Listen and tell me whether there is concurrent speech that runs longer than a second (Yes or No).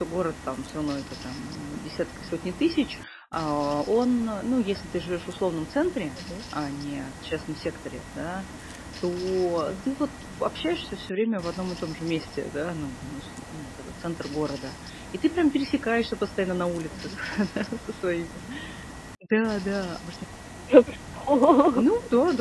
No